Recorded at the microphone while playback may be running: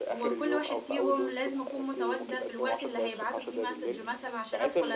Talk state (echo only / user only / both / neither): both